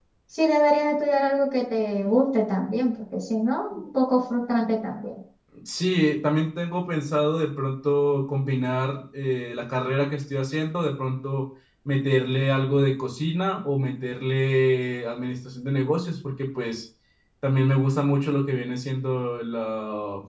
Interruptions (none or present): none